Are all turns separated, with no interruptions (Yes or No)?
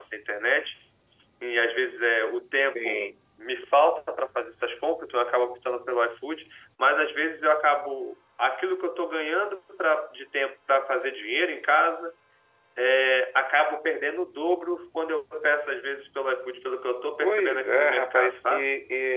No